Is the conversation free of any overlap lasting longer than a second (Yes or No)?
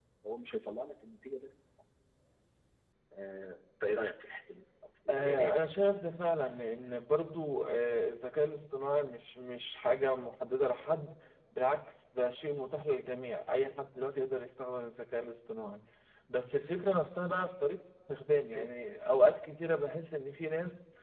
Yes